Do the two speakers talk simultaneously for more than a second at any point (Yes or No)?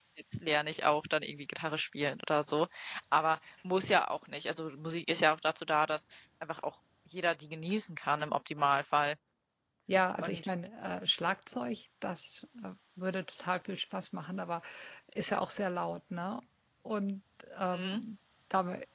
No